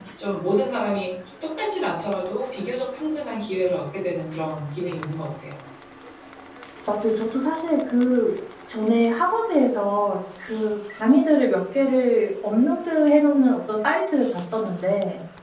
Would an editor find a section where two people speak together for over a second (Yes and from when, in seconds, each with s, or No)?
No